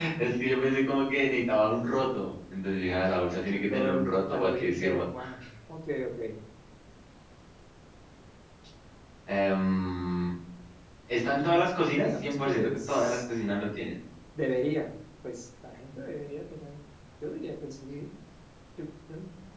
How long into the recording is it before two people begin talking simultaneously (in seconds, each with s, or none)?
3.5 s